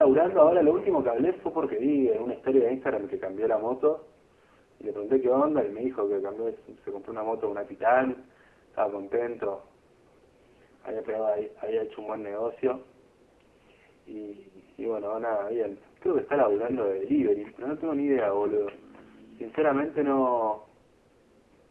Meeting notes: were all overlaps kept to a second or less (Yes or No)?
No